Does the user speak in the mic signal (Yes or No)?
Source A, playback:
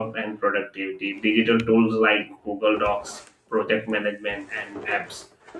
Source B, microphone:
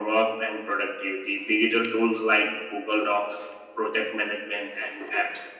No